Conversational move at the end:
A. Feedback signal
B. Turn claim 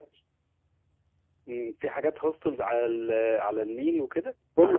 B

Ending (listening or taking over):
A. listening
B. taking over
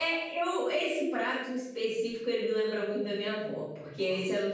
A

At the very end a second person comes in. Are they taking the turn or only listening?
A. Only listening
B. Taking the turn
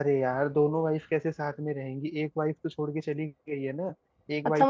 B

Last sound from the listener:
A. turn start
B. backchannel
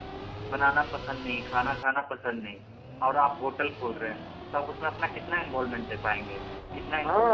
A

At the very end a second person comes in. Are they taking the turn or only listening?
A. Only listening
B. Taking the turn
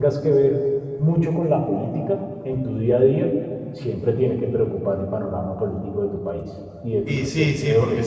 B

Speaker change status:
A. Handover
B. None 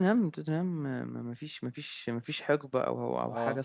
B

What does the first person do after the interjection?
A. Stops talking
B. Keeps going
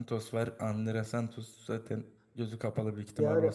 A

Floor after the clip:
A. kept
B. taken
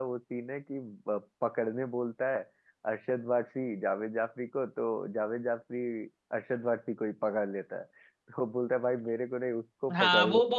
B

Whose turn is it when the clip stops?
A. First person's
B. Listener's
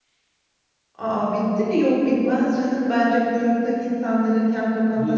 A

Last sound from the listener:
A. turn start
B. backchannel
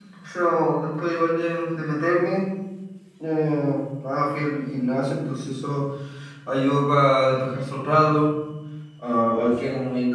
B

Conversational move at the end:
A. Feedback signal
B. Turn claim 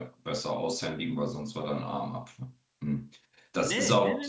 B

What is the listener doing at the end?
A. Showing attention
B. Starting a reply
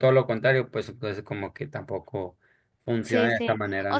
B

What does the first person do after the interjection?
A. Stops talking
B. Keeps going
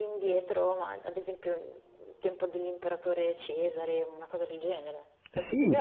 A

